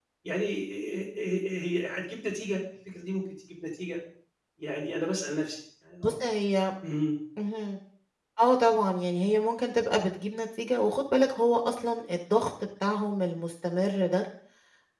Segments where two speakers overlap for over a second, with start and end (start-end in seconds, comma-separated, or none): none